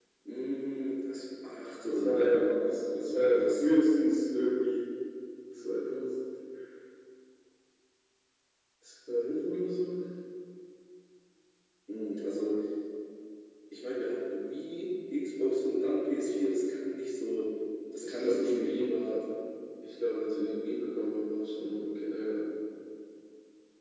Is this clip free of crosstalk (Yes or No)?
No